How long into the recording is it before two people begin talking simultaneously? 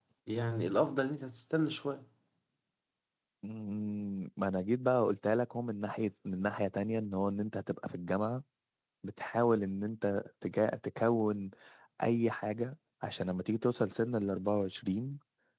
none

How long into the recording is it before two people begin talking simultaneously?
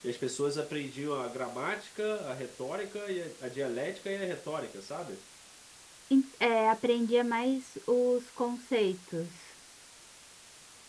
none

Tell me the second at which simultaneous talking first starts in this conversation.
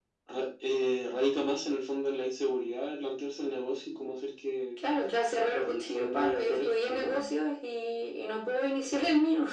5.6 s

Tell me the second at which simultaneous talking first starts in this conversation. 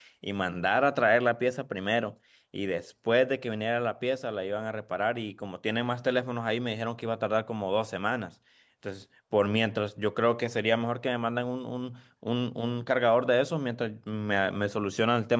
none

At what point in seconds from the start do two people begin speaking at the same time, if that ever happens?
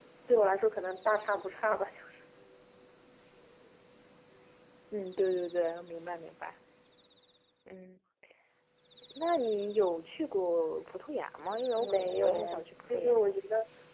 11.8 s

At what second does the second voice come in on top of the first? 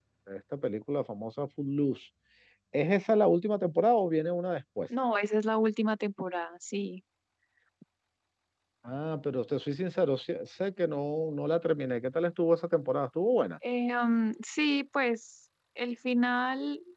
none

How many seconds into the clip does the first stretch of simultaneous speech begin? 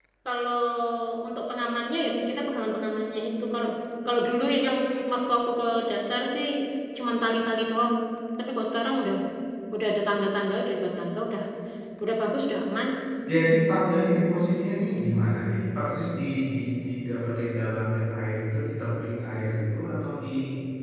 none

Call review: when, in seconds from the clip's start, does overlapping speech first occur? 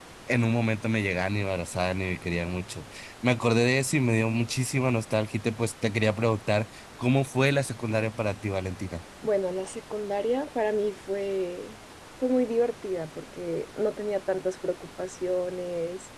none

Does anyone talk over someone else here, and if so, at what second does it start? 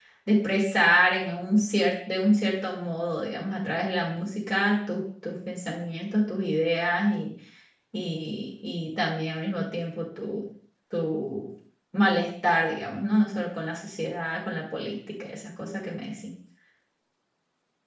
none

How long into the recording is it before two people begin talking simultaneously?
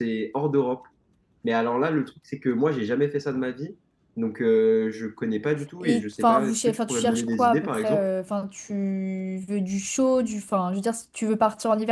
5.8 s

